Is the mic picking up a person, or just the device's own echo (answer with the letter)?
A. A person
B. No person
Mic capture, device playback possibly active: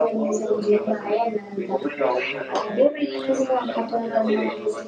A